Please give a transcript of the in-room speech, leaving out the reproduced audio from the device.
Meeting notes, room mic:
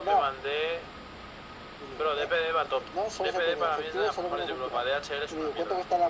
none

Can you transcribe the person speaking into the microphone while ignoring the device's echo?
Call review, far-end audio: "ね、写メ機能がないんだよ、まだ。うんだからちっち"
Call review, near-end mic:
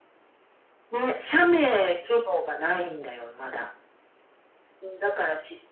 none

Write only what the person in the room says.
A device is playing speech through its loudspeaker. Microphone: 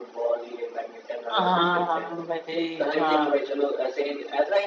हाँ हाँ, भाई हाँ

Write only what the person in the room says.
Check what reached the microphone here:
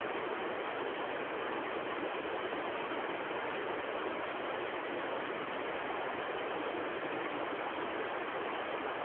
none

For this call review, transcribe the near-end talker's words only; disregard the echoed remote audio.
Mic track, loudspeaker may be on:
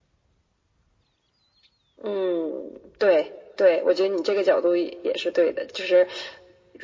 none

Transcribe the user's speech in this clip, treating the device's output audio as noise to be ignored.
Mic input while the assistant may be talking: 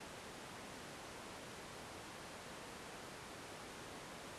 none

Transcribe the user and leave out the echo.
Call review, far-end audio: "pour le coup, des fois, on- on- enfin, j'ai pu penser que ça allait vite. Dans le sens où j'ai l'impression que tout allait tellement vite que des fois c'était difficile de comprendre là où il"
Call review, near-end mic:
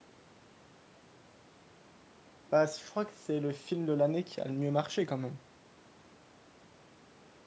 Bah je crois que c'est le film de l'année qui a le mieux marché quand même.

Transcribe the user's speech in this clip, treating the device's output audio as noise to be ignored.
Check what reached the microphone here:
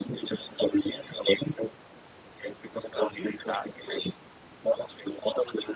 fico assustado.

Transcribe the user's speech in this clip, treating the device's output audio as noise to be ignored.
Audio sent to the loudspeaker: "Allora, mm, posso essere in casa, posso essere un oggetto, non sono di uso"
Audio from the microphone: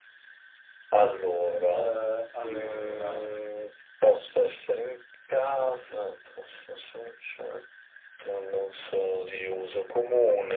Eh, allora,

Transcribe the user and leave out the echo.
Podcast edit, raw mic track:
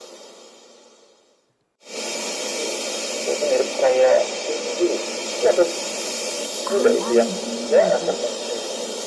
Aneh-aneh juga sih.

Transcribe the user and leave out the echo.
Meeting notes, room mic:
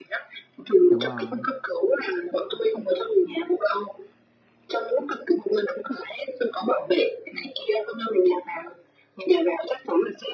đúng rồi

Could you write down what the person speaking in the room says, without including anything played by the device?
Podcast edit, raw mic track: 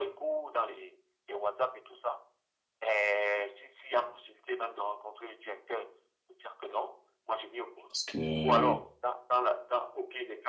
parce que

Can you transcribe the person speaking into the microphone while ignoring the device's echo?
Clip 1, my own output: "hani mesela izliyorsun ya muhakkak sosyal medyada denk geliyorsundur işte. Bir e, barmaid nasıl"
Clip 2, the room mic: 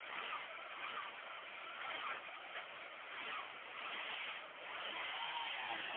none

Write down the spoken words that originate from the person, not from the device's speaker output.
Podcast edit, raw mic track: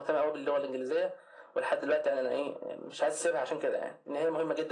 none

